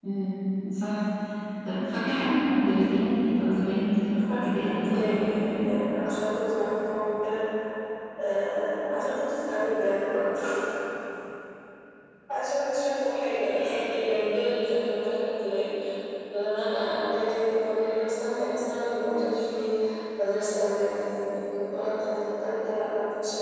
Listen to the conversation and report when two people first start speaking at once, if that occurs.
4 s

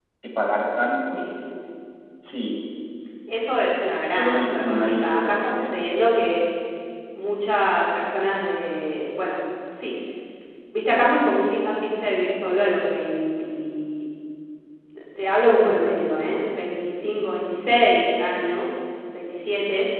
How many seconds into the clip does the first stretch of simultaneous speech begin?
4 s

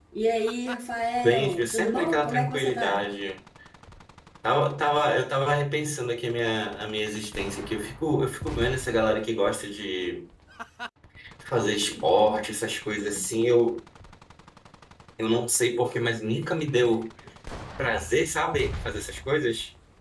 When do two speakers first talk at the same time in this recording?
1 s

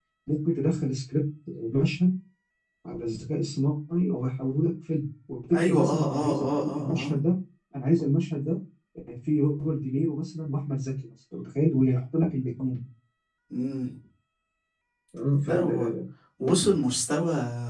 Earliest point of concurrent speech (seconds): 6 s

